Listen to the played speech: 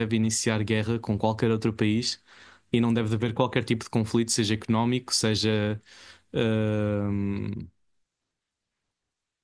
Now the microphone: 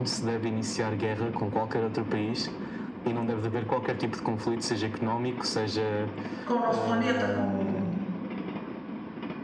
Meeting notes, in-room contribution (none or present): present